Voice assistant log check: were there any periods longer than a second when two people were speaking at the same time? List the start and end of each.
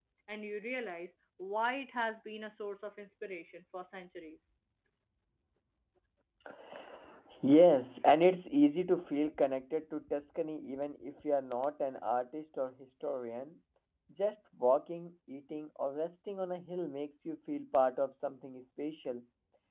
none

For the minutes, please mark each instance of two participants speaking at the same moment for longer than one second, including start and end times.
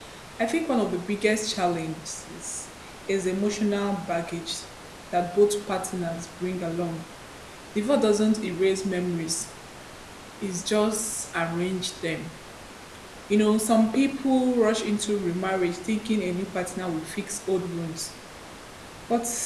none

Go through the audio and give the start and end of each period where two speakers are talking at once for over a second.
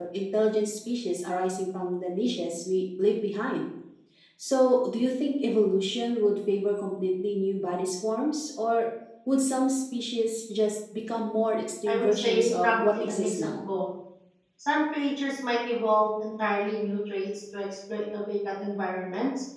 11.9-13.6

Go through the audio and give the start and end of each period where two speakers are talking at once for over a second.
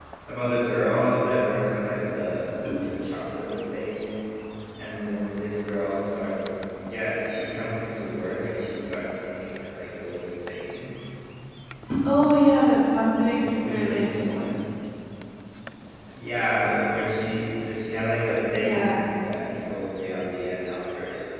13.3-14.5

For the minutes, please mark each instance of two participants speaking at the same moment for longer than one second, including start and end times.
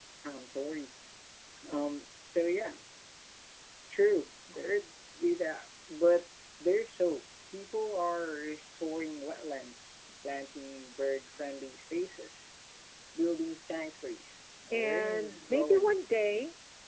14.7-15.9

